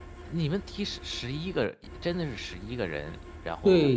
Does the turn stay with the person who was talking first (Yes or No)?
No